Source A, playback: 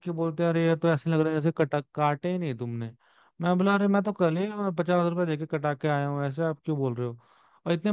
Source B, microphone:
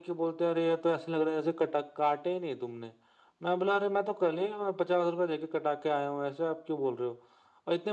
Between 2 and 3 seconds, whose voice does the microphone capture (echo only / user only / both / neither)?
echo only